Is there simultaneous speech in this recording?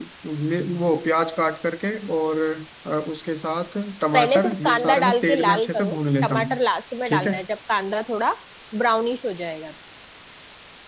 Yes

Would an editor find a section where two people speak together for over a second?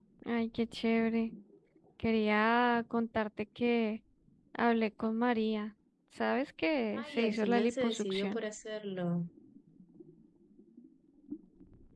Yes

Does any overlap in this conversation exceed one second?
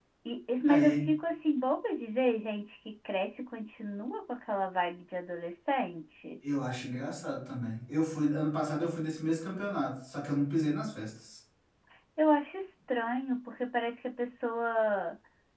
No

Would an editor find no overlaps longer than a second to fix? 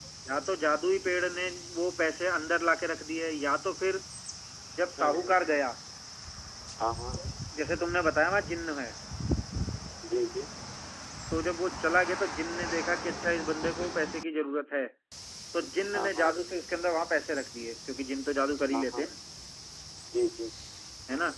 Yes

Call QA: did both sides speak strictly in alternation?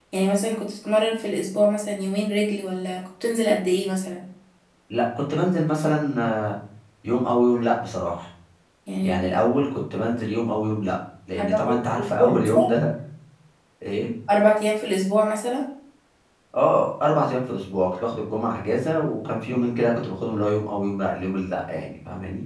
No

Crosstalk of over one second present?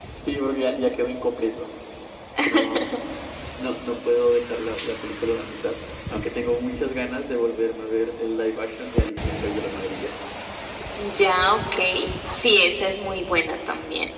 No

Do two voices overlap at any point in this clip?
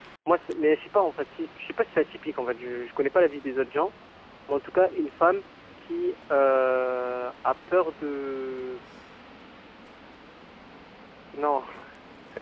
No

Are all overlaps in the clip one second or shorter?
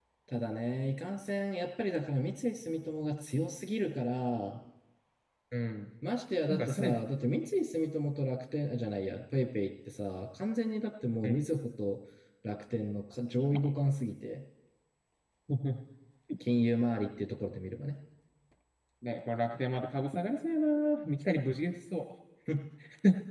Yes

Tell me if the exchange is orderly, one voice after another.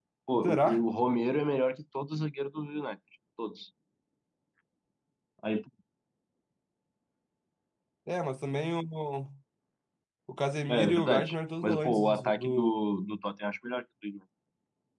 No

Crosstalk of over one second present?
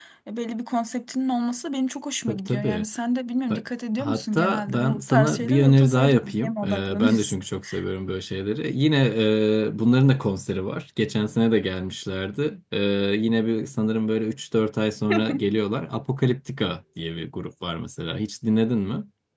Yes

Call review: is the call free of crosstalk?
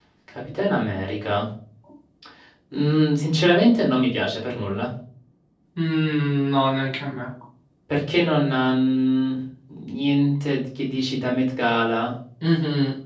Yes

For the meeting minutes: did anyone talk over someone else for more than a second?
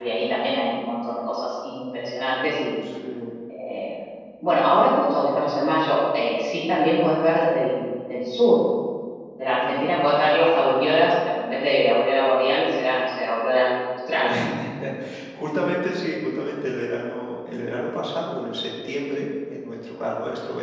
No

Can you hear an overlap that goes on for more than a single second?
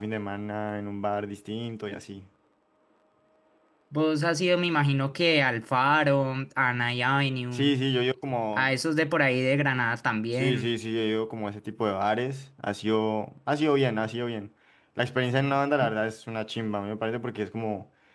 No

